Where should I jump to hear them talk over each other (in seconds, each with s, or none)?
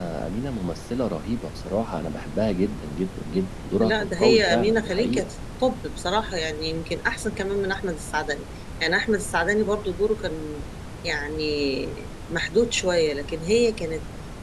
3.8 s